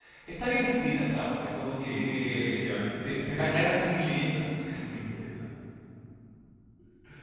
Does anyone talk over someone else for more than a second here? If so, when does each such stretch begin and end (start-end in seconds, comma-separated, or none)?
1.8-3.7